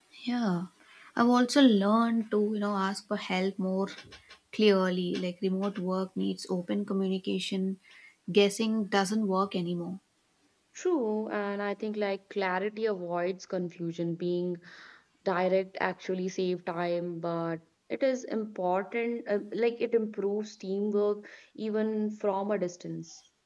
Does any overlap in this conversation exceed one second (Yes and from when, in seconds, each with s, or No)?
No